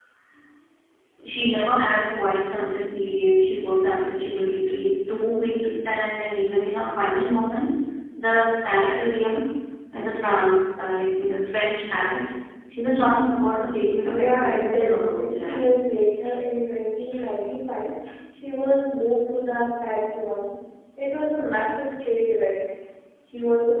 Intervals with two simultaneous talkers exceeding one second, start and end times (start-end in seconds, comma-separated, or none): 14.1-15.6